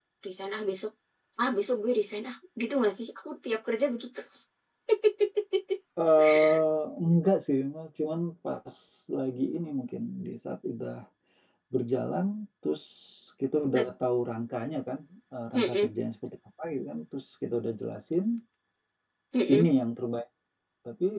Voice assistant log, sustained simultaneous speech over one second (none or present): none